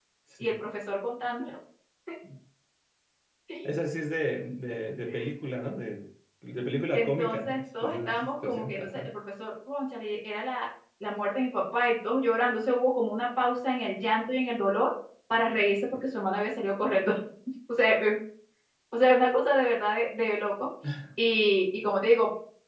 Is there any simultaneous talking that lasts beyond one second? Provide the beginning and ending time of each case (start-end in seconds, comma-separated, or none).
6.9-9.1